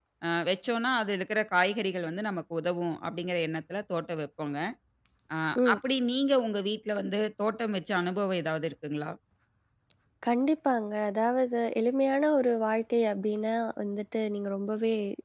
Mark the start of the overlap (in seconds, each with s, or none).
none